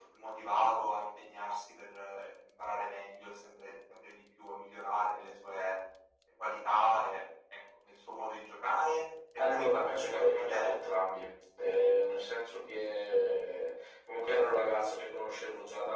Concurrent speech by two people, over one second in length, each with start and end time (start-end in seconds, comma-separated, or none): 9.4-10.7